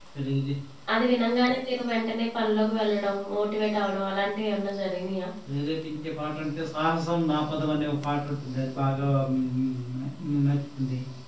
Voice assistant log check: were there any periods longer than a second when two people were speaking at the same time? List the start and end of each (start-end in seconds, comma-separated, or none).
none